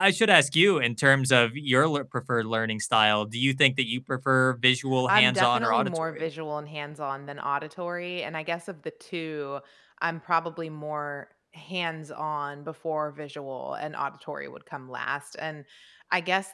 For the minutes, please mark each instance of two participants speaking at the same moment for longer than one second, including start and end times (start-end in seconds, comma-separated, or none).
5.1-6.3